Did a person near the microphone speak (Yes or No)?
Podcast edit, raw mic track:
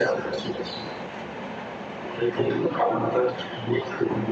No